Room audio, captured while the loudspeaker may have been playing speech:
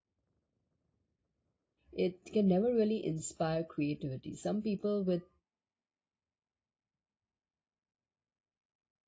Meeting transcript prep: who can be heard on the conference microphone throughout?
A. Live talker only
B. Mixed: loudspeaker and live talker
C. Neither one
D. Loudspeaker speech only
A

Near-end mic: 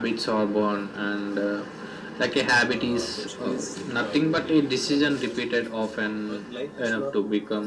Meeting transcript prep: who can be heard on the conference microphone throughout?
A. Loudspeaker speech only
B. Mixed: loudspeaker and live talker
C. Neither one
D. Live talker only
B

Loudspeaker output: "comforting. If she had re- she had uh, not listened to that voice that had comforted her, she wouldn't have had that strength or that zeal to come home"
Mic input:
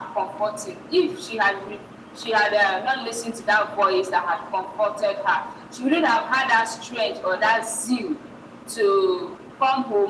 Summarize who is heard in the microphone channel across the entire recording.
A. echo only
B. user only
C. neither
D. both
A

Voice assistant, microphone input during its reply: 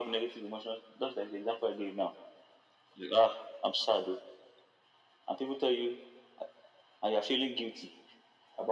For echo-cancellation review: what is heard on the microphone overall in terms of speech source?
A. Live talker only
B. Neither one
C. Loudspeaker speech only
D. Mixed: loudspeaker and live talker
C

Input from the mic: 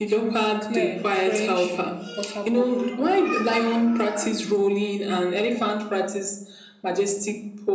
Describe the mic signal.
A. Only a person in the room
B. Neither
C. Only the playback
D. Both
D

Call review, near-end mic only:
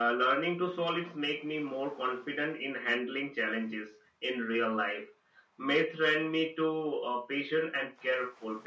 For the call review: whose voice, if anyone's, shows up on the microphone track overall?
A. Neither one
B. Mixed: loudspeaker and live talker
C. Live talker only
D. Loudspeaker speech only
D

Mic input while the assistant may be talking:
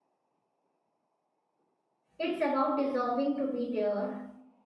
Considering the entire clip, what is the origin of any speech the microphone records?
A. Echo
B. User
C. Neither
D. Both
B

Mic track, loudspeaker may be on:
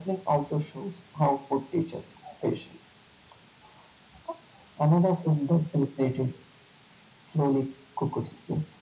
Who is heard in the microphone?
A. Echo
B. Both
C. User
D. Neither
A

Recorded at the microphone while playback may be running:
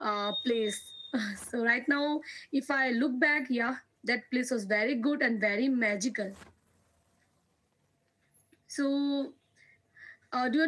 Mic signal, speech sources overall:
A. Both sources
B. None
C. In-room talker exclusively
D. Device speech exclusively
D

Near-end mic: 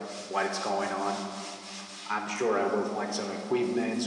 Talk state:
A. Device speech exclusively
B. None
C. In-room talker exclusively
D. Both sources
A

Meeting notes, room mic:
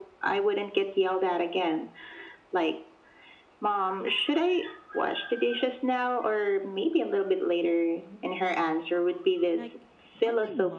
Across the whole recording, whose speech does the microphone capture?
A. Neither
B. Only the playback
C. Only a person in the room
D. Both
D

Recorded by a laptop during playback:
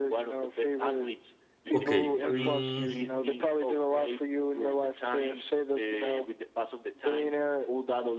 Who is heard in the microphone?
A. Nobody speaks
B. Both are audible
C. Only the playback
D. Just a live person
B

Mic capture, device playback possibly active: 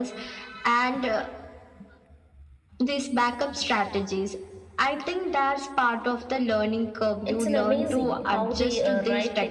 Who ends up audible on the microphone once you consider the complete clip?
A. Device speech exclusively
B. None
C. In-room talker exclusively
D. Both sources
D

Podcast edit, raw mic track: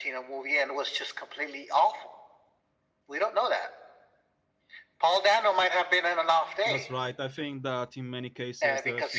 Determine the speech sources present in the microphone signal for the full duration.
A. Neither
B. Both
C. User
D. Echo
B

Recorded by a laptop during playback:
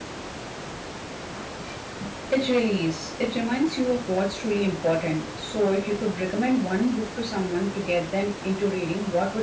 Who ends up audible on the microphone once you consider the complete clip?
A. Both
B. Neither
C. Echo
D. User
D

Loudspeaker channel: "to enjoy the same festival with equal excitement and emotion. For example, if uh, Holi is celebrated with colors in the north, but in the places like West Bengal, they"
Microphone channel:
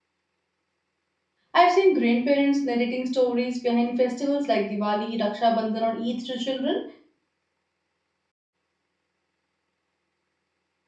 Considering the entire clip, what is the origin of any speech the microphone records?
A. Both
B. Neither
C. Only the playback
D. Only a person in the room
D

